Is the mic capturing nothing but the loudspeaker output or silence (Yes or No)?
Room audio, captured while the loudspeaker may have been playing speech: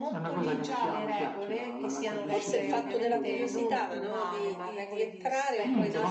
No